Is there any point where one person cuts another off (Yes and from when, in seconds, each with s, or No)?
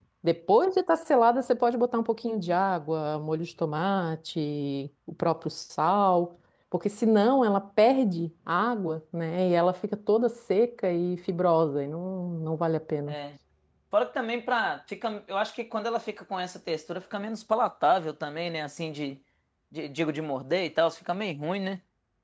No